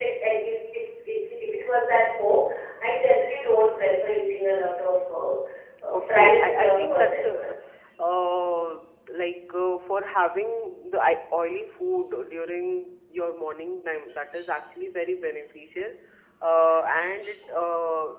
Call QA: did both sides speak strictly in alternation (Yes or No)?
No